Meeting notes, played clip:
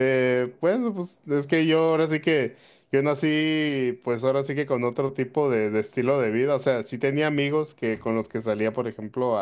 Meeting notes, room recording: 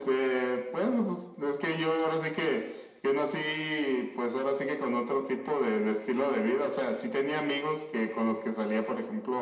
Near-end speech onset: none

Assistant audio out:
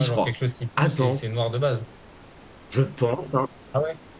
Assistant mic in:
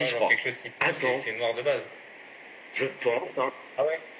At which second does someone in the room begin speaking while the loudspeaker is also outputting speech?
none

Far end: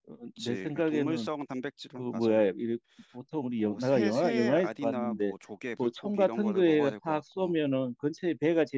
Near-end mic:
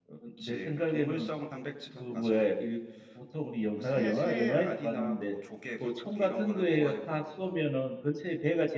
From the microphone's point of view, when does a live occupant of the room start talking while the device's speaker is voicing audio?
none

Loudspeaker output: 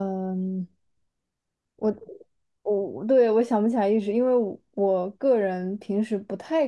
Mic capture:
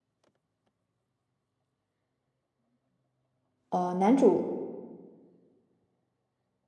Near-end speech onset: 3.7 s

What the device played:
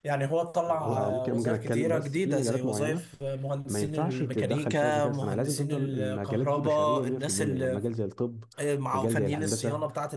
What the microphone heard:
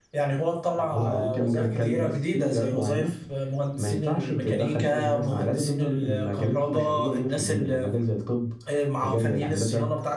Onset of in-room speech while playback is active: none

